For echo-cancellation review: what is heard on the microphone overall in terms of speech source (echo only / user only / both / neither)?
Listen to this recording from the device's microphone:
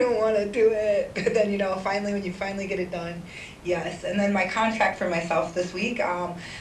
echo only